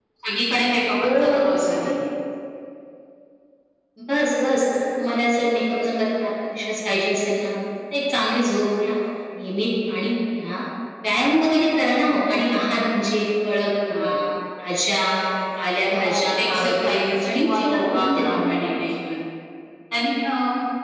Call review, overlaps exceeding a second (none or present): present